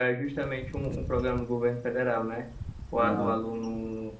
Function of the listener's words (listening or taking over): listening